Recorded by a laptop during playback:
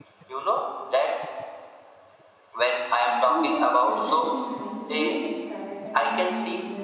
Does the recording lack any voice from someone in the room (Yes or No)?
No